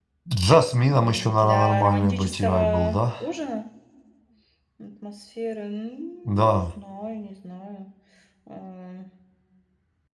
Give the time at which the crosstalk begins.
0.9 s

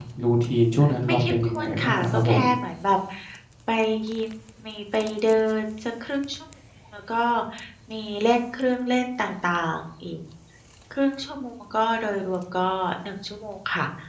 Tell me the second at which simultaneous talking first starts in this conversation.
1.1 s

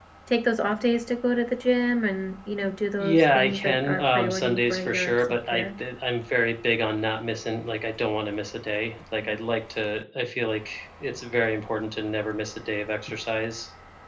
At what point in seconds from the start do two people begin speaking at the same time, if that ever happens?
3.0 s

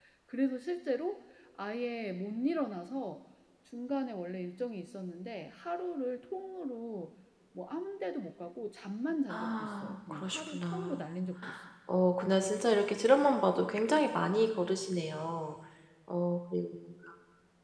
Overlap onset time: 9.3 s

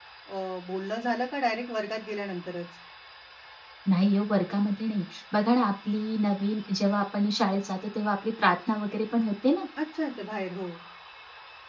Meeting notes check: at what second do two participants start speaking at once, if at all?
none

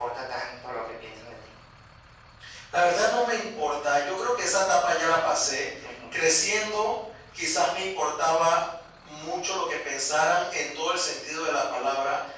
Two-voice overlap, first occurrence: none

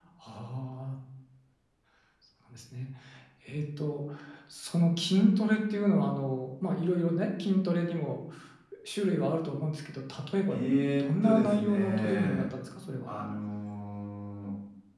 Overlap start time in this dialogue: 11.0 s

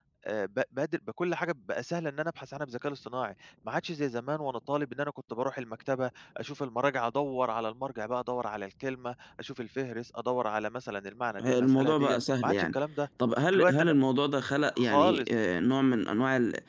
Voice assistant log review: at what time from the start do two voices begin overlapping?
11.4 s

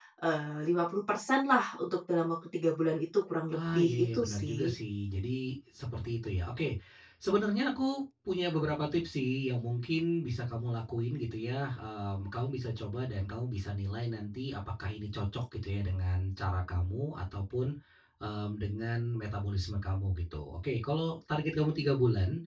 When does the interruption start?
3.5 s

